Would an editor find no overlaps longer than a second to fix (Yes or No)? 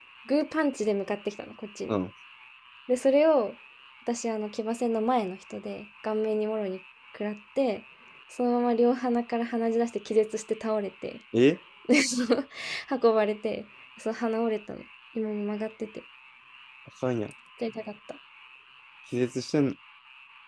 Yes